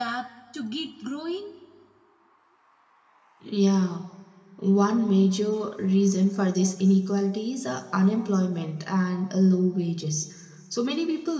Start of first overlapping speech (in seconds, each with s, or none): none